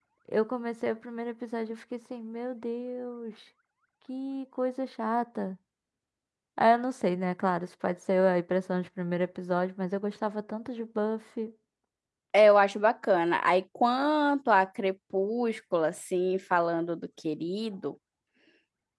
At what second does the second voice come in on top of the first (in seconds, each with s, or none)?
none